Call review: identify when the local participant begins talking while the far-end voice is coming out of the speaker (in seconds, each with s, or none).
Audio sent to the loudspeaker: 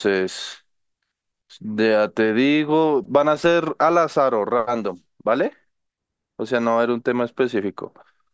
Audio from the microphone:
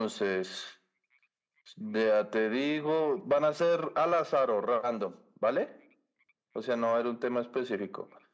none